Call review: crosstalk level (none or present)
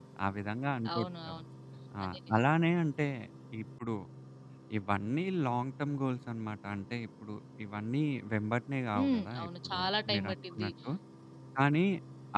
present